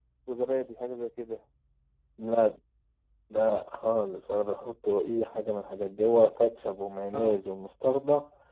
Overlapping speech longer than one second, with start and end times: none

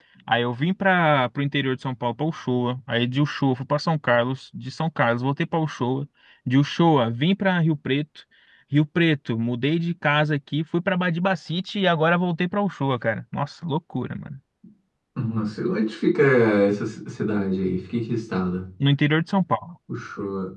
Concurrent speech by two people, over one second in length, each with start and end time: none

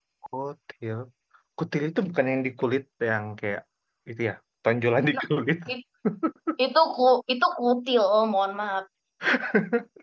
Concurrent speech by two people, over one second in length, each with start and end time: none

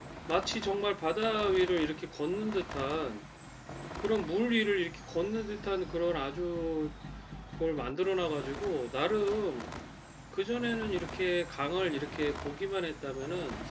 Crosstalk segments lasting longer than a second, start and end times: none

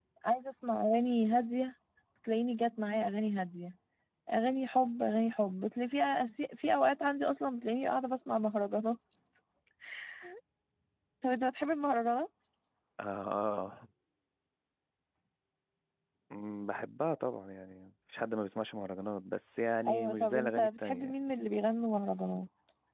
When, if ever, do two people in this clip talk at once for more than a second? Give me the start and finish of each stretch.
19.9-21.1

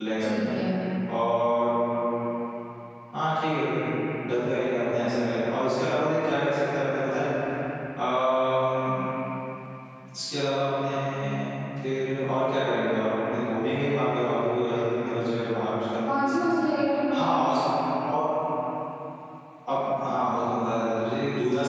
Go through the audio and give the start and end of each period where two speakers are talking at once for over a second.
none

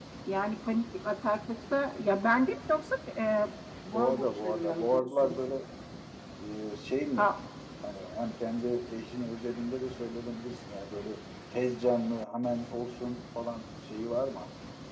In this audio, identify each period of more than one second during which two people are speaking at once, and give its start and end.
3.9-5.4

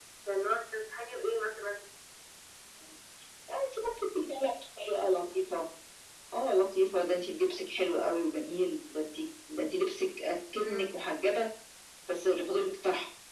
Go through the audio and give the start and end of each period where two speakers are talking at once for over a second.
none

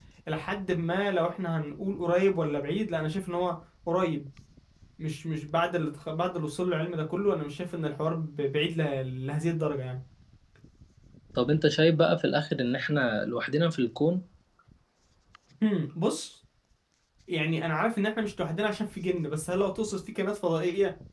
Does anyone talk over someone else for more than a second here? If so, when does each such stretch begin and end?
none

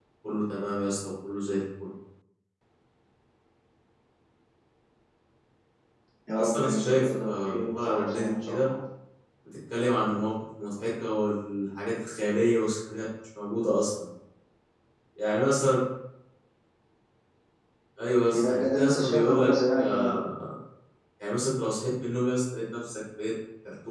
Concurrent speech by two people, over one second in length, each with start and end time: 6.3-8.7, 18.3-20.1

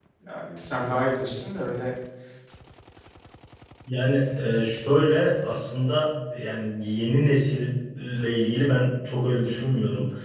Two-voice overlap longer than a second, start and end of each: none

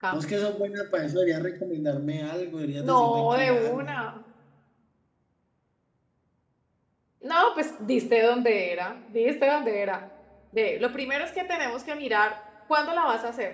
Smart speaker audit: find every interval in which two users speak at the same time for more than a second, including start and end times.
2.8-4.0

